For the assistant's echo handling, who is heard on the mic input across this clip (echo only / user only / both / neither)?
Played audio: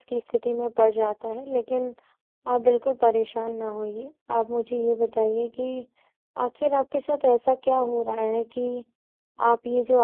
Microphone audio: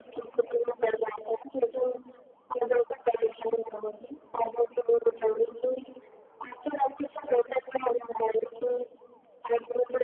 echo only